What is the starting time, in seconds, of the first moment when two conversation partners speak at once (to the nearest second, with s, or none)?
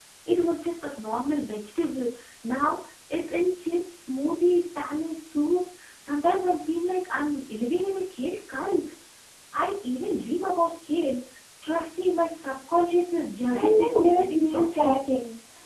14 s